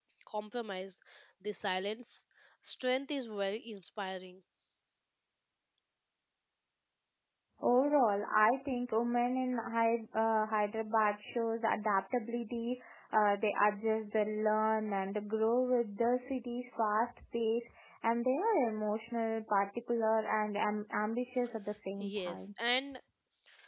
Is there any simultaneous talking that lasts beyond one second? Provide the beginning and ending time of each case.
none

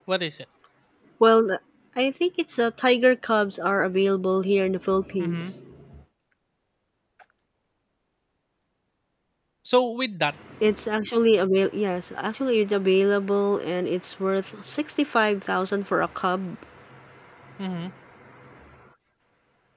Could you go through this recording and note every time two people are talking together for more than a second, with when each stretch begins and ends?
none

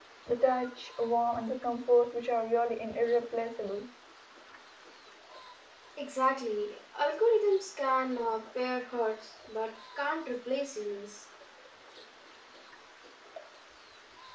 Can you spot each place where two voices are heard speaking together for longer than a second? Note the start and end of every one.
none

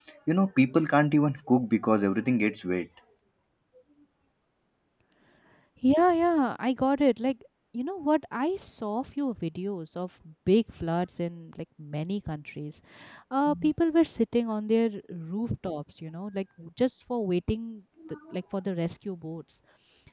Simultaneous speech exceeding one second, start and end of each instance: none

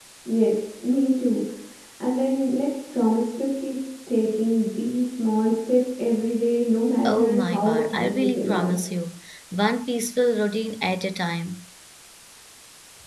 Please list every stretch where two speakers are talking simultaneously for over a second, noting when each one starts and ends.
7.0-8.8

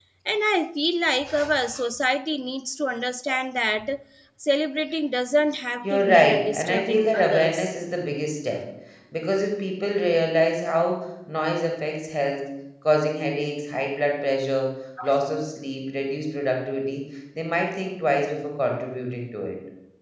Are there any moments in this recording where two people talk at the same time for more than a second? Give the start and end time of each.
5.8-7.7

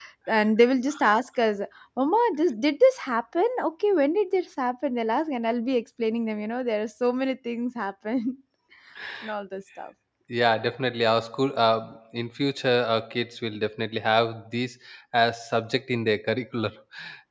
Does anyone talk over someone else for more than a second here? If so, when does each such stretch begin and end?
none

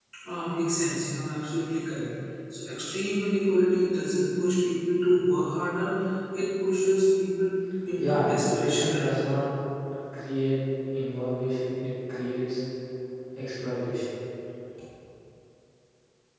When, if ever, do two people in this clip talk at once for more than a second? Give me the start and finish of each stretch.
8.0-9.2

